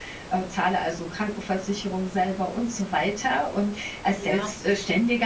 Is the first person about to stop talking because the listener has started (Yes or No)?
No